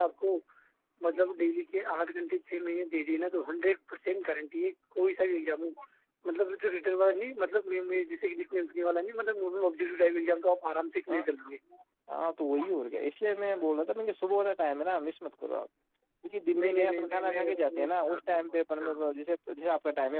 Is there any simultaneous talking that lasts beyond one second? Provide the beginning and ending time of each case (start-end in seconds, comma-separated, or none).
16.6-18.9